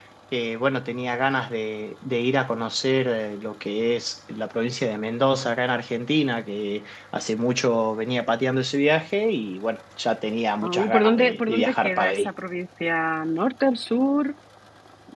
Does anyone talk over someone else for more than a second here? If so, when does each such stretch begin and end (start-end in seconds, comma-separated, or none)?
10.6-12.3